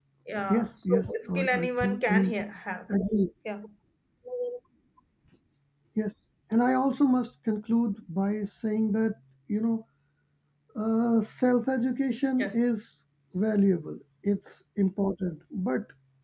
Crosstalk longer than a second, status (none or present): present